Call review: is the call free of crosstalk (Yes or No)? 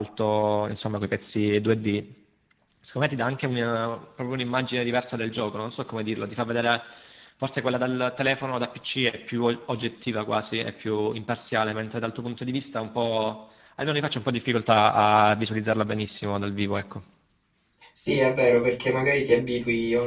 Yes